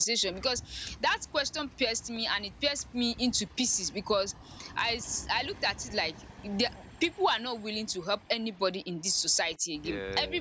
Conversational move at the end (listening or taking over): listening